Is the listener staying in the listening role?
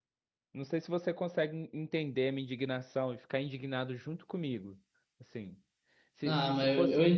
No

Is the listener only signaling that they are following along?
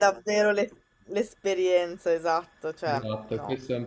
No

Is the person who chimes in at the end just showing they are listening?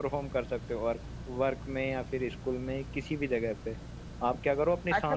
No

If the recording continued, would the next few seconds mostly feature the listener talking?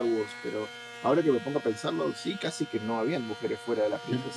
Yes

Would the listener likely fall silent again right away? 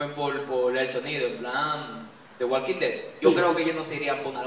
Yes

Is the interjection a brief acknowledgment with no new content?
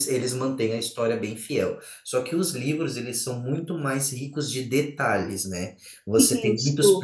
Yes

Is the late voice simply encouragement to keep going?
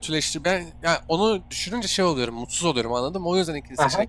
No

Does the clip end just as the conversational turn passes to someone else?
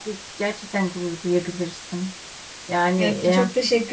Yes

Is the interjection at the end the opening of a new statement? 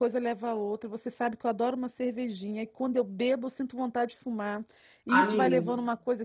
No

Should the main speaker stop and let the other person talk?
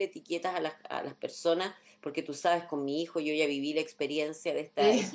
No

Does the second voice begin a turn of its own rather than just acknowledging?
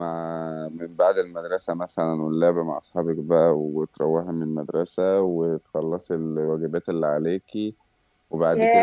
Yes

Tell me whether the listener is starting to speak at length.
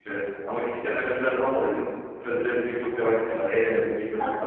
No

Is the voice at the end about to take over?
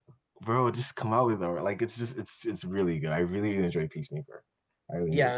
Yes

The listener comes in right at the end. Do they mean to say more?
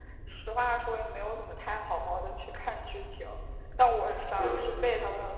No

